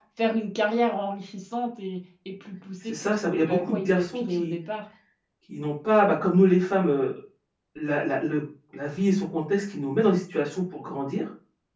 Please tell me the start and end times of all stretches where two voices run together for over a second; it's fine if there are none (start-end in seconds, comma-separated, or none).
2.9-4.5